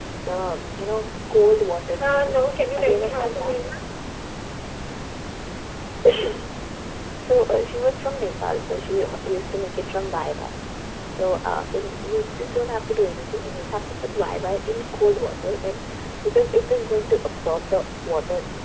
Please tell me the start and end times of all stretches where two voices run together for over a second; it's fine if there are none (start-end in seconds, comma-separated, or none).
2.0-3.6